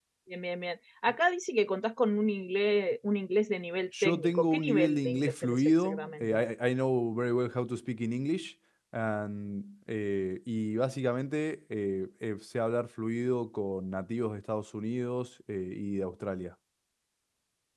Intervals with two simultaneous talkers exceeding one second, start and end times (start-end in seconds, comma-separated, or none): 4.0-6.4